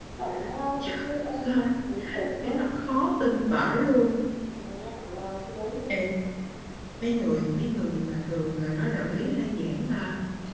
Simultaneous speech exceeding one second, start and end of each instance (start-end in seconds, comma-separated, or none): none